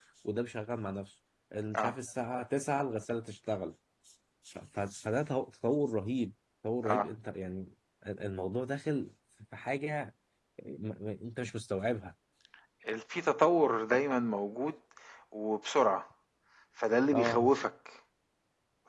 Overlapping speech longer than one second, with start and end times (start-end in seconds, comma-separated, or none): none